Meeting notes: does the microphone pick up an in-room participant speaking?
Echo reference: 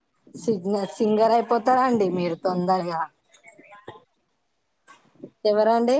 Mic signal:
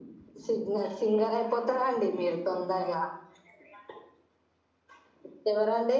No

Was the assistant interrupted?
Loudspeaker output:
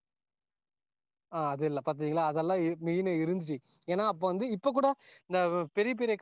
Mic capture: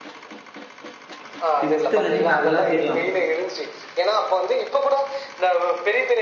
Yes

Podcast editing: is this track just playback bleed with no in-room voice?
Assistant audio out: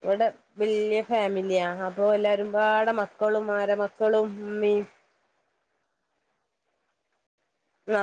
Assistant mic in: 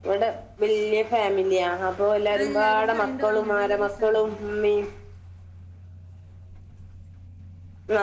No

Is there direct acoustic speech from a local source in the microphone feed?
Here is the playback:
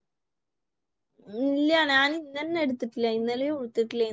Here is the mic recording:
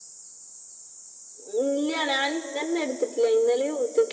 No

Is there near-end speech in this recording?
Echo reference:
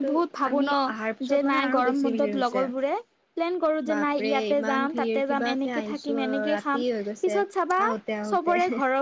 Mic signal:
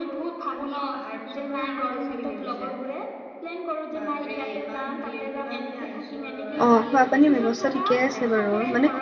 Yes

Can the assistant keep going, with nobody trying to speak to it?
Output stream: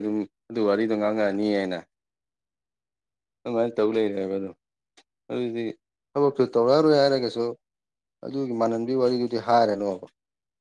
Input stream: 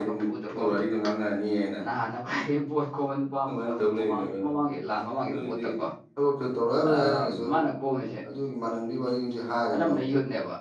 No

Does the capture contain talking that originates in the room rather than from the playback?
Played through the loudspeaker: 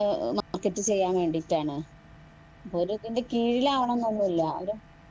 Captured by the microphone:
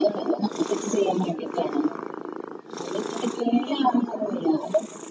No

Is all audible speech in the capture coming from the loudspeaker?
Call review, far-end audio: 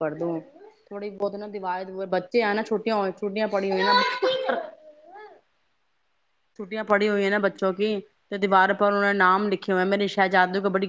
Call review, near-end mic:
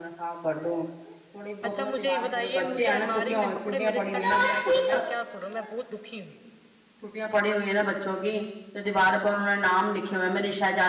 No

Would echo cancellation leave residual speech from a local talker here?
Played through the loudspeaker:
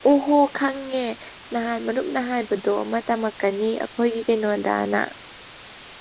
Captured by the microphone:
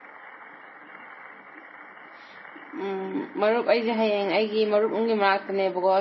Yes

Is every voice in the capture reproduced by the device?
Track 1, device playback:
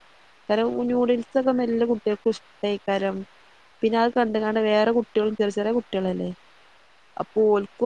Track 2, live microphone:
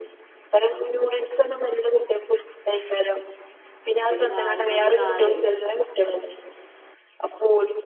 No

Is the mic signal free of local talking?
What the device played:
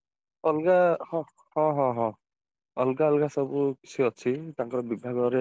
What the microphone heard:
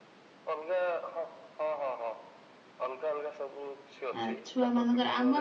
No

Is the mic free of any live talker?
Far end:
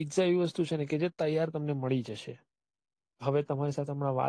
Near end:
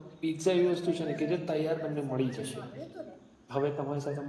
No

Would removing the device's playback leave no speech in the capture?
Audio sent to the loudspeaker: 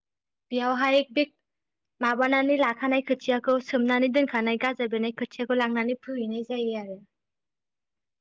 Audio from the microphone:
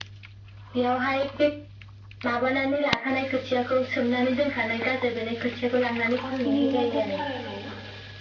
No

